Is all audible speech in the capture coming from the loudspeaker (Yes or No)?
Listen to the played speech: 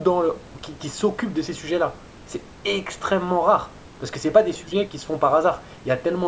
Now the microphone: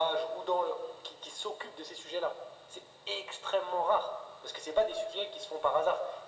Yes